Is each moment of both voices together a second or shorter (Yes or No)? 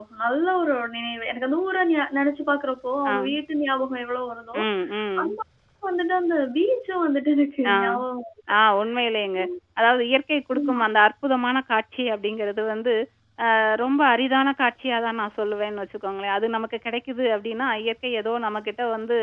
Yes